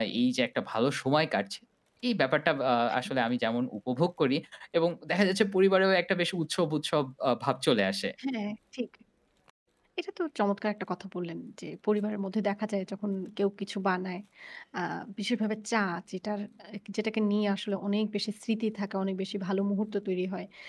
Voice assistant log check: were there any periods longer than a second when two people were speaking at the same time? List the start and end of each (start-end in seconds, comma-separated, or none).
none